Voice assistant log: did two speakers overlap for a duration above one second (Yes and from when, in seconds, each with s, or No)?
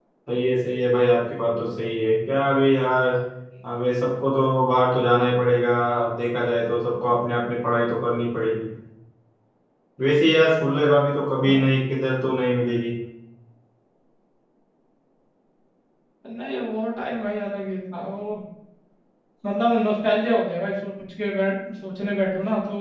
No